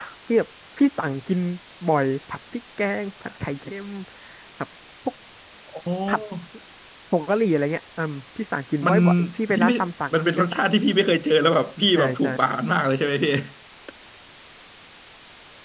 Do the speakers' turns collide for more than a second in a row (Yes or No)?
No